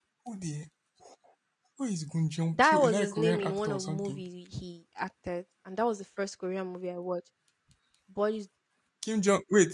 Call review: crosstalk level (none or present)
present